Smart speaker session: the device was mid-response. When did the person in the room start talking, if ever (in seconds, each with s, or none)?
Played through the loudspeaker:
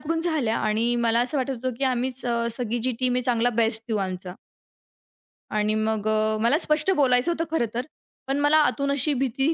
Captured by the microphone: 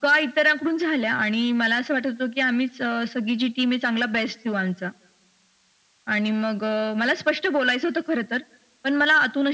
none